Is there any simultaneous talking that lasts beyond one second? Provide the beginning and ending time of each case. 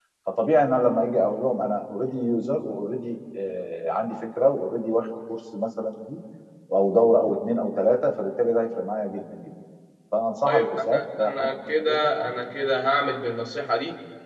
10.4-12.1

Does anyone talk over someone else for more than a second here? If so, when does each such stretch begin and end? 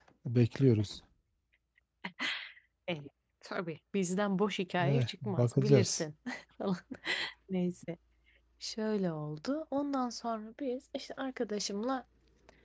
4.8-6.0

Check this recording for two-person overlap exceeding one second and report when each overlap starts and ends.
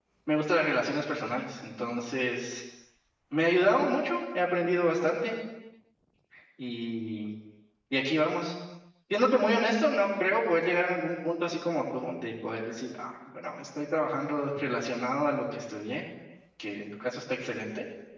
none

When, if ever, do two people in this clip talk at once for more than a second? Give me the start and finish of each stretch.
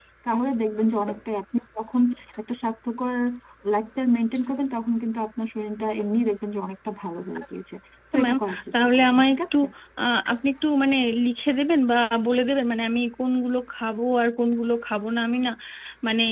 8.2-9.6

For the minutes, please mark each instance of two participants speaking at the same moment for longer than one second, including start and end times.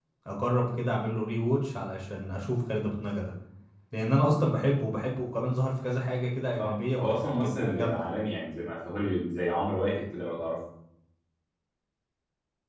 6.6-8.0

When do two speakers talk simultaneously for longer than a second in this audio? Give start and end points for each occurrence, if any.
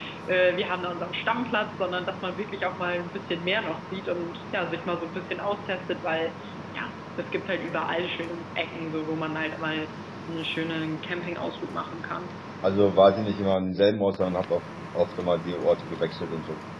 none

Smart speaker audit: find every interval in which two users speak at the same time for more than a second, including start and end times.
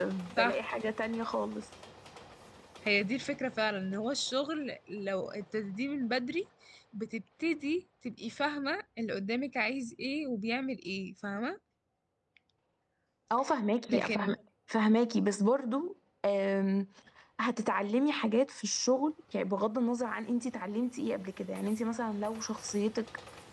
none

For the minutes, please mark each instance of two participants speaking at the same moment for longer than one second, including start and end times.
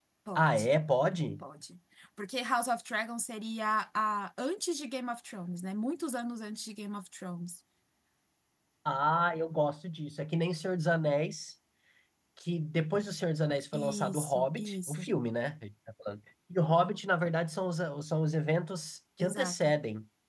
13.7-15.1

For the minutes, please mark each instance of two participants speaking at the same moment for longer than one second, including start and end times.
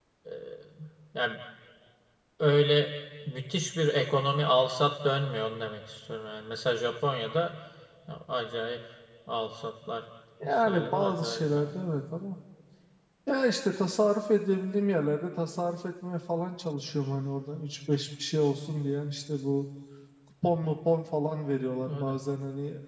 10.4-11.7

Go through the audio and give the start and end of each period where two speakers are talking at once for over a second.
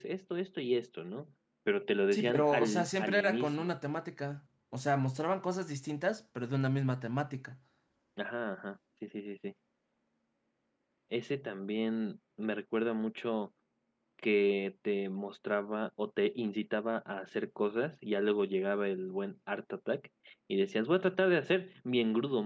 2.1-3.7

